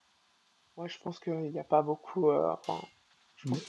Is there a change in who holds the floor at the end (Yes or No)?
No